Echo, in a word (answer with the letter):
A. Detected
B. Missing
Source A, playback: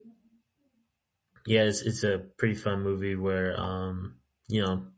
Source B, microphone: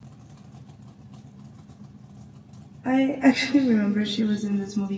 B